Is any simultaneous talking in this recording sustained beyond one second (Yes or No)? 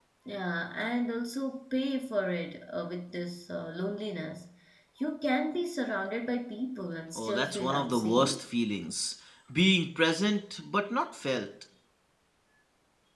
Yes